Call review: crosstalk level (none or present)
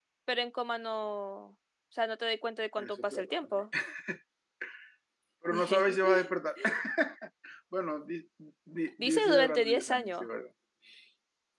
present